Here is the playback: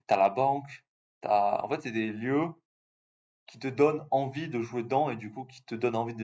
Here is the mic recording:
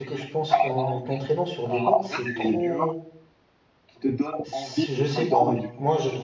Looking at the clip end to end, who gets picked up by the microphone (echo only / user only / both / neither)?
both